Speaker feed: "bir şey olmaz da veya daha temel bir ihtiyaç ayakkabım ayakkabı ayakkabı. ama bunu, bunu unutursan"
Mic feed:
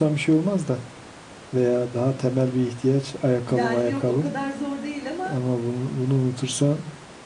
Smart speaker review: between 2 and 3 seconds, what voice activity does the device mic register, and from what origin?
echo only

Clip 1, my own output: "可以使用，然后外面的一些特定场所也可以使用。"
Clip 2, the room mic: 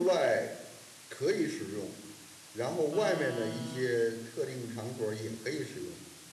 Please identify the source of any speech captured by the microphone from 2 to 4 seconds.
both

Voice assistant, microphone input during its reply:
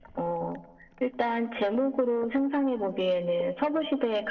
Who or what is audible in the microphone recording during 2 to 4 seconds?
echo only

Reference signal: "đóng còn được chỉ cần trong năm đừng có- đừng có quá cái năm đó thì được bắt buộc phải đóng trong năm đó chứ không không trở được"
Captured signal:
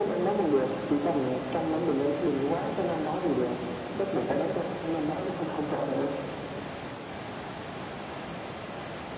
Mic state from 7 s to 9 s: neither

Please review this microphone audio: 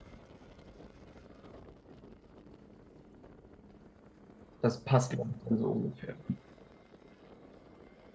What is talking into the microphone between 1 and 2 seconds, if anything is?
neither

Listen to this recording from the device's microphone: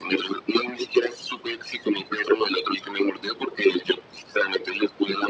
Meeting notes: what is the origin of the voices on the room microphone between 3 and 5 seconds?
echo only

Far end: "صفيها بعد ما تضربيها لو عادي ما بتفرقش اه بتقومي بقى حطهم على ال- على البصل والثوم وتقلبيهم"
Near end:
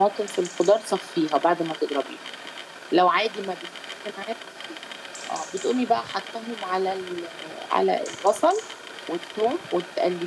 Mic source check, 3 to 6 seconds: echo only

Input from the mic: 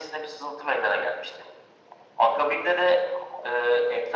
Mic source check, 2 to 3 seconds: echo only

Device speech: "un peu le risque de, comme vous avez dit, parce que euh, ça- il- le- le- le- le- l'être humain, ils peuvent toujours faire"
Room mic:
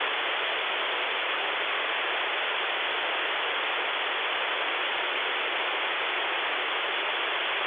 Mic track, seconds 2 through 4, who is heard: neither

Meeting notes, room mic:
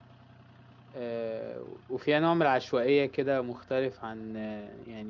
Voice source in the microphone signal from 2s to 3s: user only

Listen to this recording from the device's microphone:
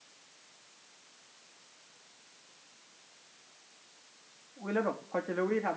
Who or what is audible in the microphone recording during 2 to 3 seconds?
neither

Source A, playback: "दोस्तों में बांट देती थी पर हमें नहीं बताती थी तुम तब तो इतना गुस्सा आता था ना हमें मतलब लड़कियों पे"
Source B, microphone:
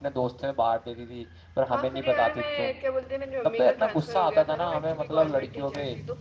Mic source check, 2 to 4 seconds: both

